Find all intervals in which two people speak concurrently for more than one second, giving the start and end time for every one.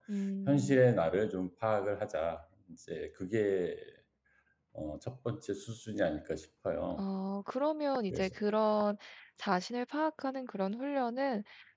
none

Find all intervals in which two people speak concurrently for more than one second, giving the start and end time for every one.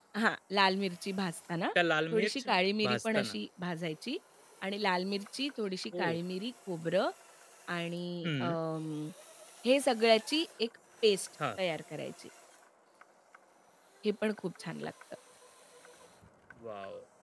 2.1-3.4

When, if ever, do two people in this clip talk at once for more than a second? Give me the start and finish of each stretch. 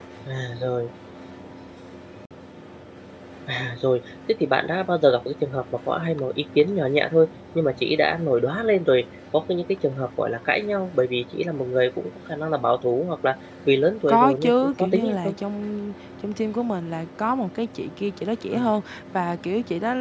14.1-15.3

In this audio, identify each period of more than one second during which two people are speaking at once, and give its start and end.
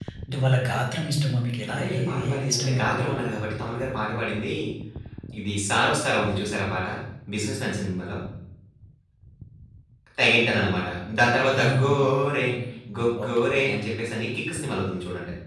1.7-3.1

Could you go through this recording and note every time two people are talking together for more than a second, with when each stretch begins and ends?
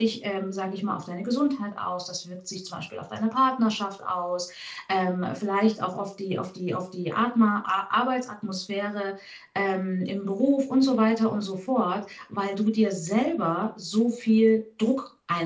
none

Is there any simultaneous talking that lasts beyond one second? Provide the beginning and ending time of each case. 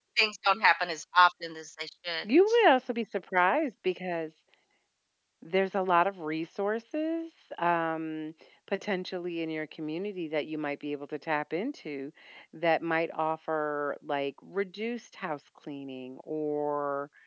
none

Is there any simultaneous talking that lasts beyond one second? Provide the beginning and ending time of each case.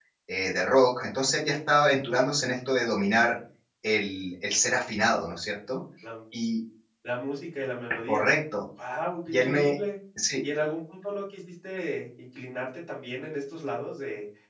none

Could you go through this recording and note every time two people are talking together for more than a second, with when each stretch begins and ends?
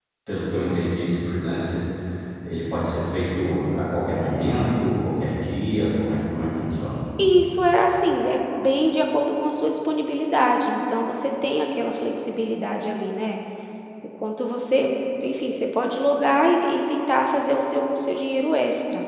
none

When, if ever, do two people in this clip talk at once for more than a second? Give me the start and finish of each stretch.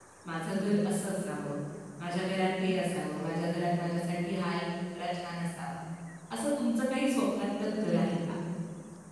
none

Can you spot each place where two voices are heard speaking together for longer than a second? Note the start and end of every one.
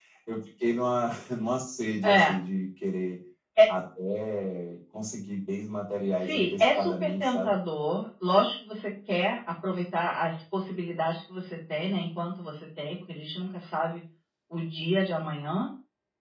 6.2-7.5

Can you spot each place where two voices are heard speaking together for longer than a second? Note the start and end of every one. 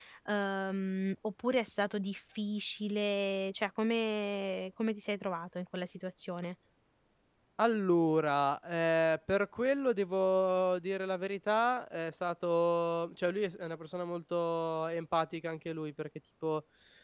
none

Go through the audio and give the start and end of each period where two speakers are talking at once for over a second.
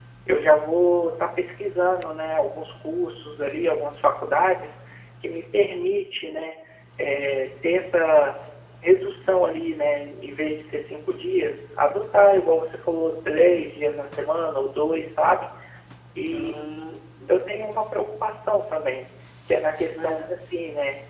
none

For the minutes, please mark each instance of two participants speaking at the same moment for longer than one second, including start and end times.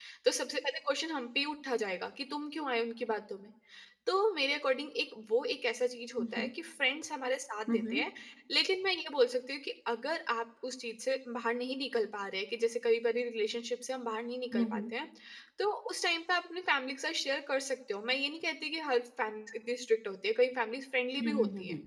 none

